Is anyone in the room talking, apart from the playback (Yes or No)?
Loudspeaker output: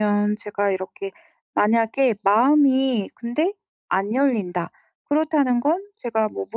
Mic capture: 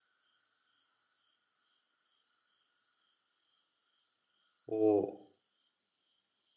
Yes